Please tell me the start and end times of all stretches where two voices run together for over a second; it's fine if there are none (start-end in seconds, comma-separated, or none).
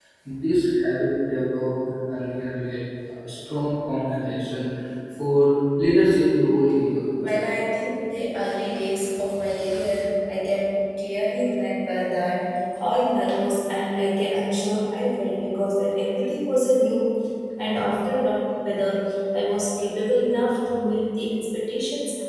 none